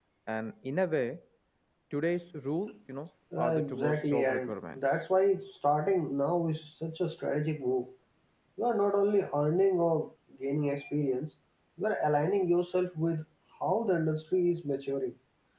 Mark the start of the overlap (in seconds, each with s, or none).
3.3 s